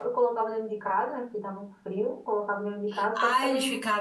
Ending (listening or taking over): taking over